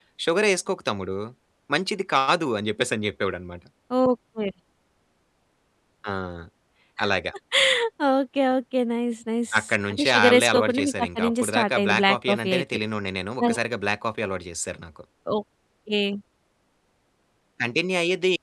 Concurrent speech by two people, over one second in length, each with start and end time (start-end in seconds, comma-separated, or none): 9.9-12.6